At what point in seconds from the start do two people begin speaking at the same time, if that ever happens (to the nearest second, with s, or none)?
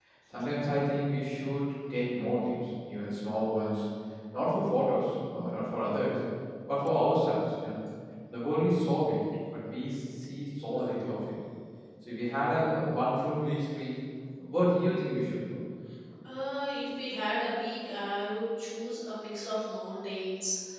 none